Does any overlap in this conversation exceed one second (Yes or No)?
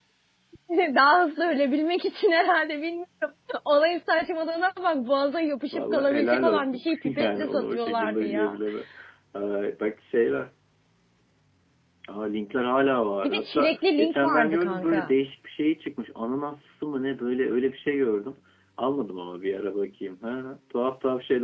Yes